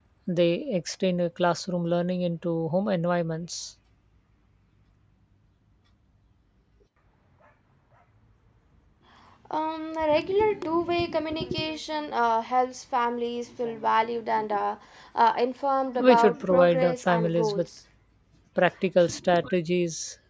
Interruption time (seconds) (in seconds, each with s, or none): 16.0 s